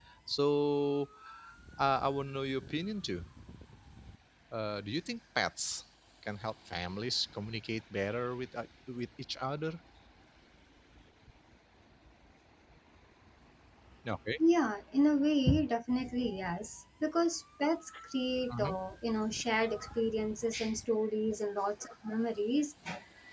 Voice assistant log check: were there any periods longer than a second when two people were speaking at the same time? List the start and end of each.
none

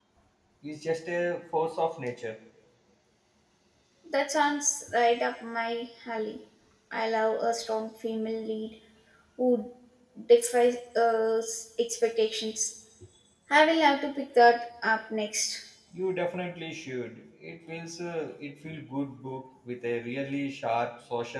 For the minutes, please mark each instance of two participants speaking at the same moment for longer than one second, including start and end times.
none

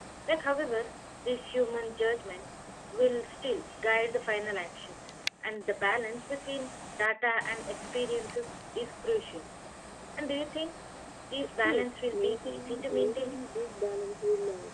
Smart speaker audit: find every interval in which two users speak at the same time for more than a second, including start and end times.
11.6-13.4

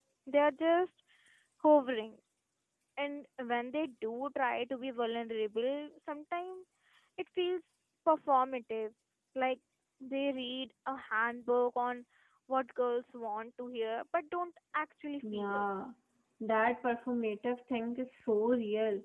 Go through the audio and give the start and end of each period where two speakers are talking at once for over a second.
none

